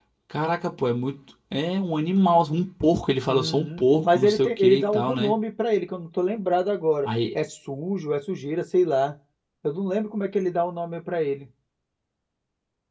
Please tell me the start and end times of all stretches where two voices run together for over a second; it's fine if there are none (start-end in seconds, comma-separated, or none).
3.3-5.4